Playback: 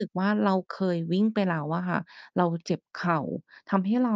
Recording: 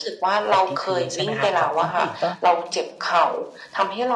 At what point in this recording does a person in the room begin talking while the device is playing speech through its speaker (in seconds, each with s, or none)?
0.5 s